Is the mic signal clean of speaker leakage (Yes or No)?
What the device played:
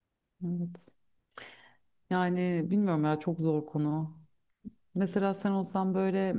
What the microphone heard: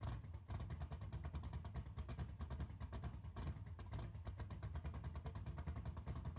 Yes